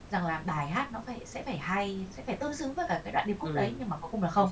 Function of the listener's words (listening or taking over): taking over